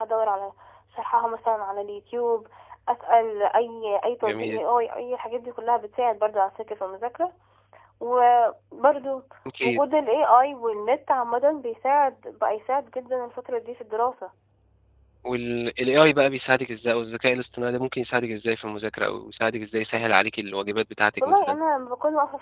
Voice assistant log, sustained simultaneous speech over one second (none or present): none